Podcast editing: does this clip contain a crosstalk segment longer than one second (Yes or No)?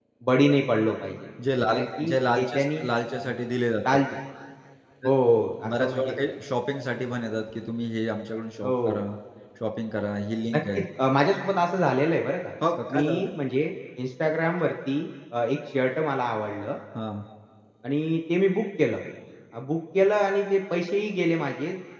Yes